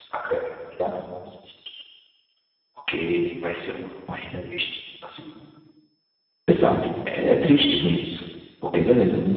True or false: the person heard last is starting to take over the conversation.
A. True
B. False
B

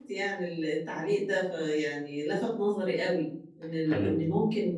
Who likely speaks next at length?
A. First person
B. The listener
A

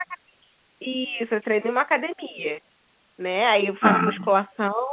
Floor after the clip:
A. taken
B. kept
B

